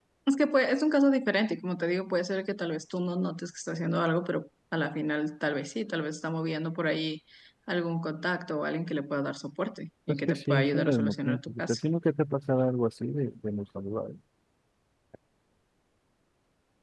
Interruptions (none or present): present